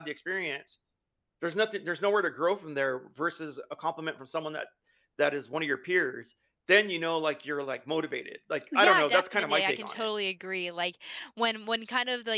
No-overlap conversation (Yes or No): No